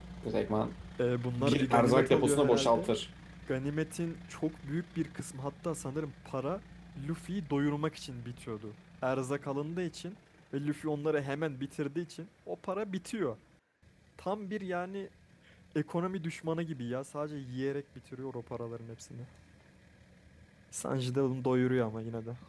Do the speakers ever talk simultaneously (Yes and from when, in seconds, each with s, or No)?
Yes, from 1.4 s